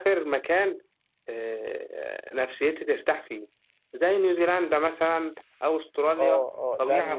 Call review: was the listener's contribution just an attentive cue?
No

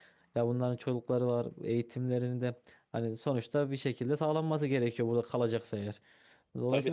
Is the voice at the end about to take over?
No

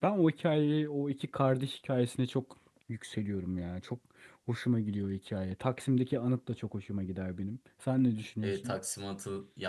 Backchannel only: No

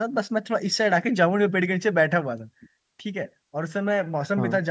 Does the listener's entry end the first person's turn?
No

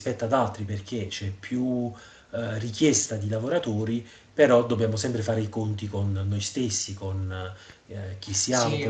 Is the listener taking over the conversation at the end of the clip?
Yes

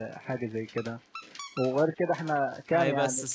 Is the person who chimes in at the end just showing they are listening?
No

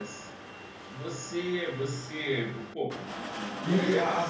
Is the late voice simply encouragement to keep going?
No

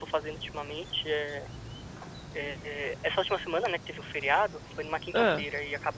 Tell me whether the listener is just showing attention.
Yes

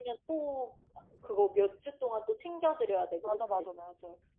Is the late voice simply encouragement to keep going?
No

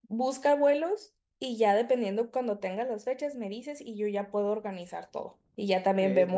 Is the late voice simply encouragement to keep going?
Yes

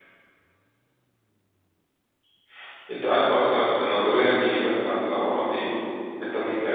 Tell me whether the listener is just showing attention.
Yes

